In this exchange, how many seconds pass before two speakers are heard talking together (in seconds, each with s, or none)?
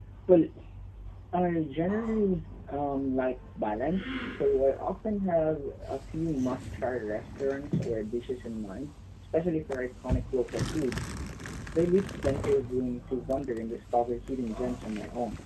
none